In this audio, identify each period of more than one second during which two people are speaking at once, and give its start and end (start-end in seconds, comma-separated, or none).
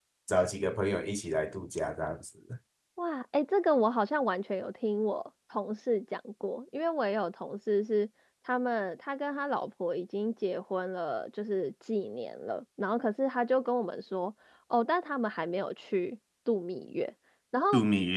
none